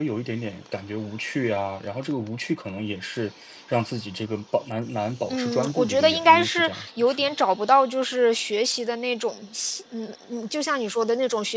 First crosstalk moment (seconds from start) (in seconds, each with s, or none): 5.3 s